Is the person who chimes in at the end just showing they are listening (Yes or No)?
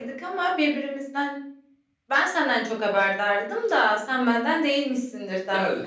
No